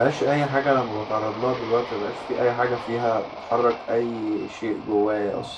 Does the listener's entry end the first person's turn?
Yes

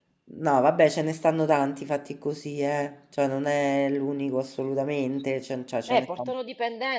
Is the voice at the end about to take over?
Yes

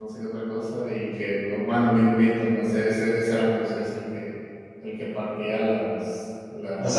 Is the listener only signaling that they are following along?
Yes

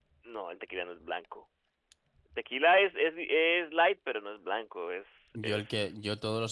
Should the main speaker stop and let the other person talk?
Yes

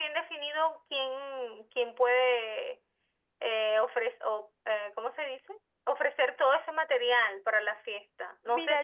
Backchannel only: No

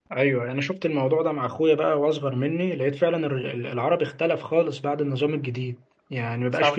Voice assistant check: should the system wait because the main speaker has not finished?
Yes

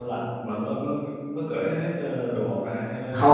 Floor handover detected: Yes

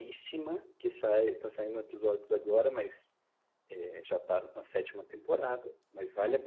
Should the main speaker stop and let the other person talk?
No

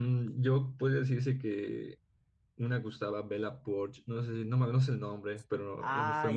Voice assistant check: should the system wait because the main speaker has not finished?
No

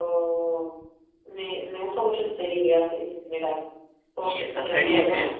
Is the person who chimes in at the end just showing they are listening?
No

